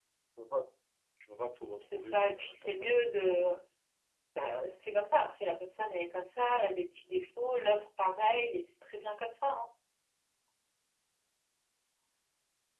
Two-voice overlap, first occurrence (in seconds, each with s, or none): 1.8 s